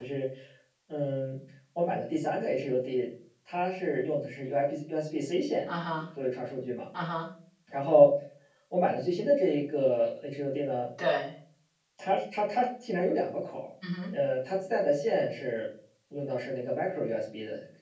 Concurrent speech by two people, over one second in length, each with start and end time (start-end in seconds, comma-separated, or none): none